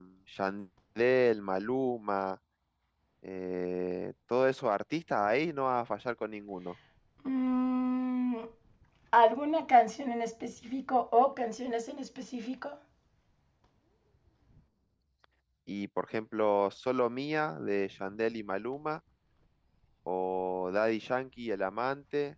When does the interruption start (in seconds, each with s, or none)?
none